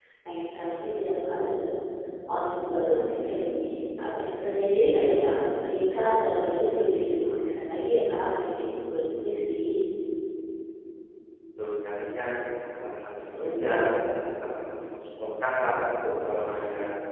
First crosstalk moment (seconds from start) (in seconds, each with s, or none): none